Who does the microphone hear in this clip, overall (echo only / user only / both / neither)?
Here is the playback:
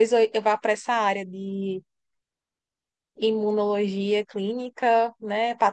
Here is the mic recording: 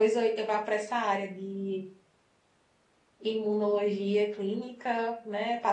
echo only